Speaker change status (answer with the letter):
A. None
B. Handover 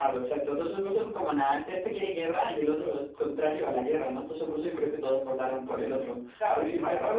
B